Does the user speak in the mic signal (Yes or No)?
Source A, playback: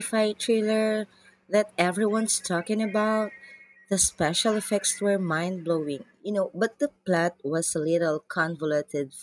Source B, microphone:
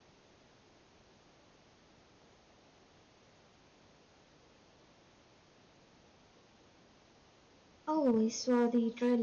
Yes